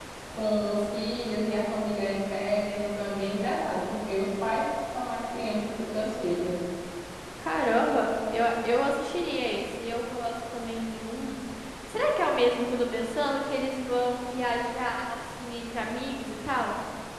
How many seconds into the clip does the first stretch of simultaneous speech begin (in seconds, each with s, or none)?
none